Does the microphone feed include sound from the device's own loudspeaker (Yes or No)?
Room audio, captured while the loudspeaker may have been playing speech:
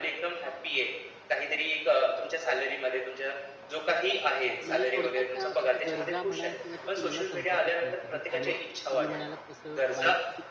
Yes